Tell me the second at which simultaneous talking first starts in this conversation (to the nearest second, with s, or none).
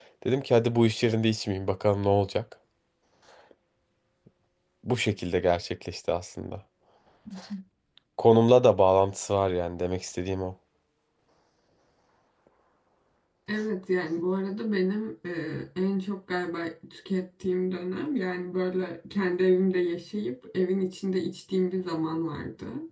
none